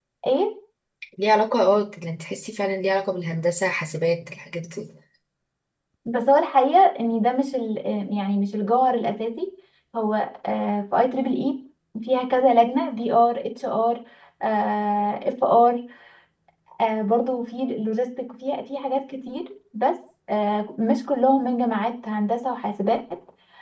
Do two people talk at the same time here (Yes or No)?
No